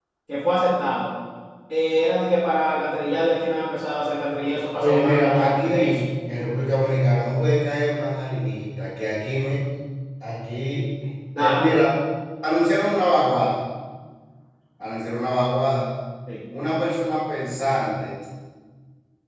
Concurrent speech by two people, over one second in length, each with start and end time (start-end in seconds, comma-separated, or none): 4.8-6.0